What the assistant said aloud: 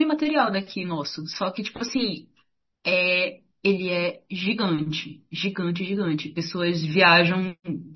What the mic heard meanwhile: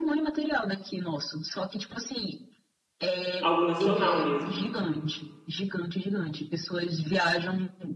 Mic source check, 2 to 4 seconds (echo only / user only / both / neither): both